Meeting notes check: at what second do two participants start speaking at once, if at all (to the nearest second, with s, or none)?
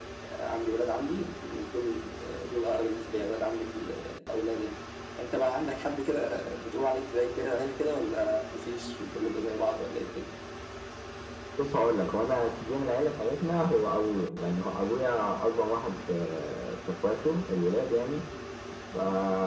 none